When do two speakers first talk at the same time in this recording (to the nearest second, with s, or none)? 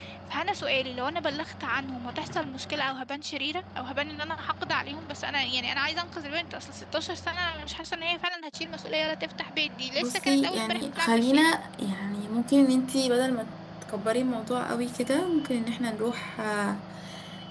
10 s